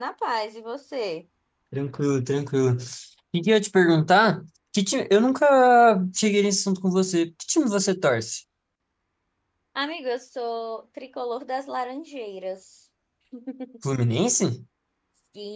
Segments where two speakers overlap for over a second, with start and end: none

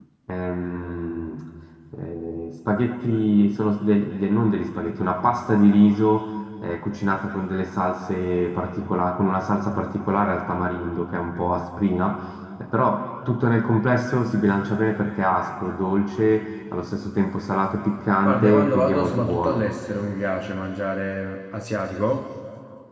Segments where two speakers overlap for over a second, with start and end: 18.2-19.6

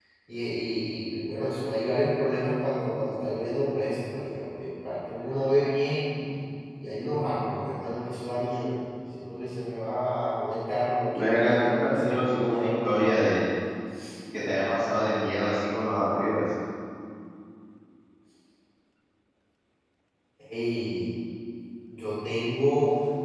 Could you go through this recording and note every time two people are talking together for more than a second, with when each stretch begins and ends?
11.2-13.2

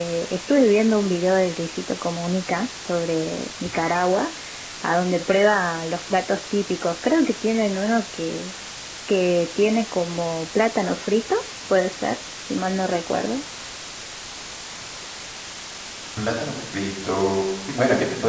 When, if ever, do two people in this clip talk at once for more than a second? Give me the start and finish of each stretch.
none

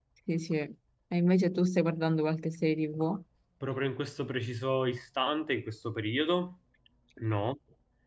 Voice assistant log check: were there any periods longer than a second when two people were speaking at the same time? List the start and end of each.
none

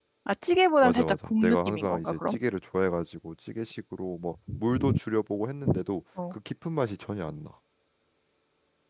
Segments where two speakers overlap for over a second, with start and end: 0.8-2.3

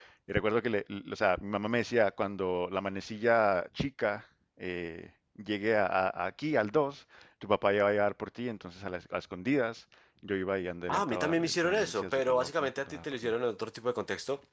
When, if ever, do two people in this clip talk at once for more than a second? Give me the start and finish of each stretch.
10.9-13.3

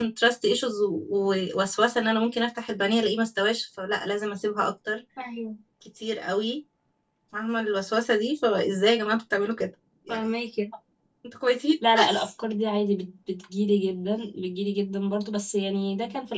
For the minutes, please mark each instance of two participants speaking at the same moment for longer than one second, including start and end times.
none

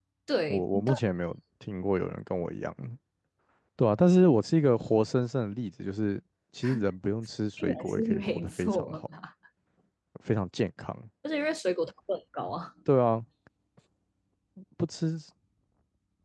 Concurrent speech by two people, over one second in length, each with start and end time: 7.6-9.0

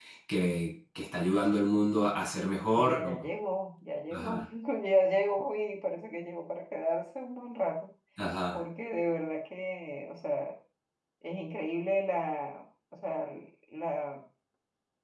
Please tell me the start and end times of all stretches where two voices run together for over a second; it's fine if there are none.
none

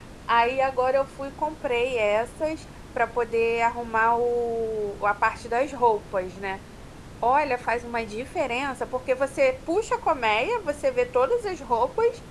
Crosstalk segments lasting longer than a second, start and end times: none

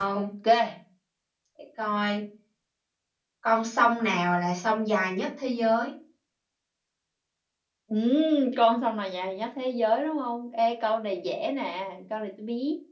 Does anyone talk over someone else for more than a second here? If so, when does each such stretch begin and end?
none

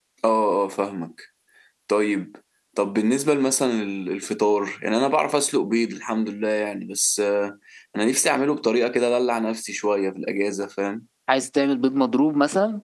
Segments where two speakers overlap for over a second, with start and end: none

